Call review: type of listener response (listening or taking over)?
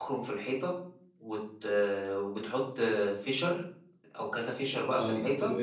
taking over